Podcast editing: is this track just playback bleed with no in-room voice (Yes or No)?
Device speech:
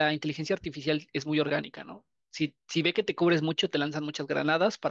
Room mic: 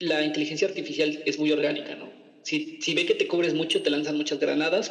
Yes